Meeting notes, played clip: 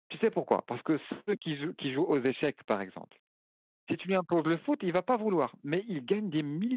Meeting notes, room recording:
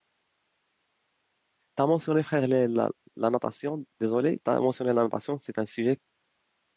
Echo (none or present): none